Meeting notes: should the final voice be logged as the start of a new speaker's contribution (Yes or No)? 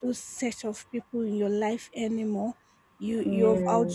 No